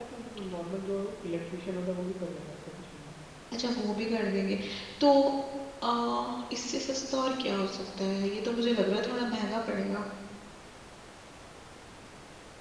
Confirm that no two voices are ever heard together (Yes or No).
Yes